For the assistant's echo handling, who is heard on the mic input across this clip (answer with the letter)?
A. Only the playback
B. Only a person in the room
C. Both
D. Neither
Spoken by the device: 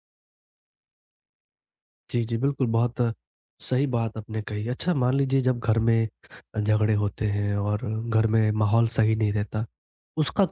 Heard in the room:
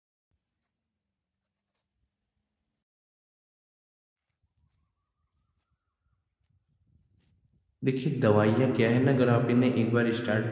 B